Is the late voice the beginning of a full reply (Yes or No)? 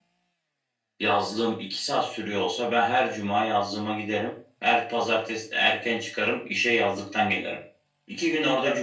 No